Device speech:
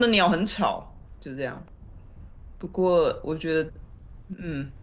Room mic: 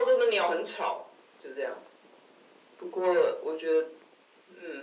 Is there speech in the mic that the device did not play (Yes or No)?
No